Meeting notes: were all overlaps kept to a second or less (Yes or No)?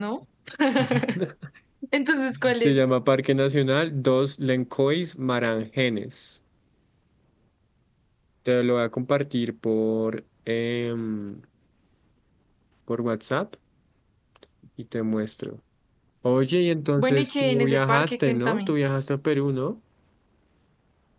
No